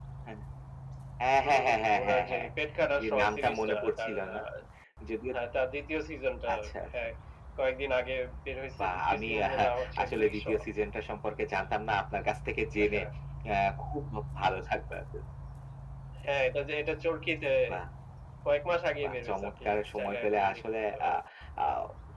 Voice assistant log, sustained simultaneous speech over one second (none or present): present